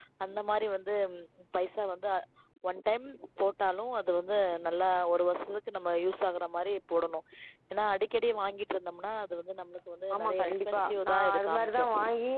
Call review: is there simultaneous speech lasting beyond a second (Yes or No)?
Yes